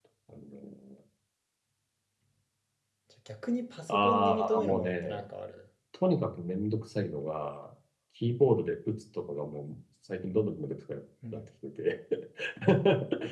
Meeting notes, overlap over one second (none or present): present